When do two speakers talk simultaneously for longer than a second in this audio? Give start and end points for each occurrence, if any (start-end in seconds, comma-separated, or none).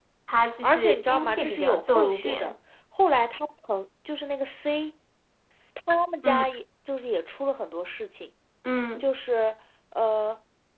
0.6-2.5